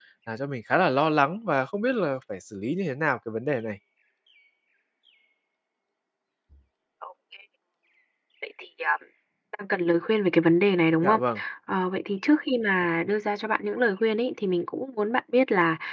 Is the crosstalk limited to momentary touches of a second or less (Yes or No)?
Yes